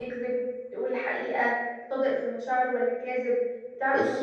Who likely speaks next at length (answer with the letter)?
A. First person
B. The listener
A